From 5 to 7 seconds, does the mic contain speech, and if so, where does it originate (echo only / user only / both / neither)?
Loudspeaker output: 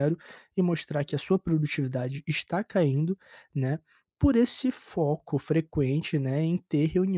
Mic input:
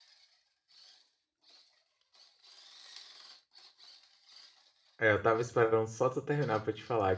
user only